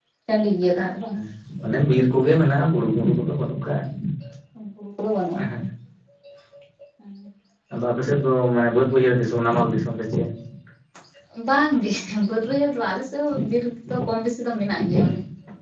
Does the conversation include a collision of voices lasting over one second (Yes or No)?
No